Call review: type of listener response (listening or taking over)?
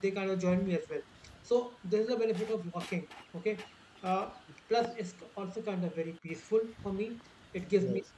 listening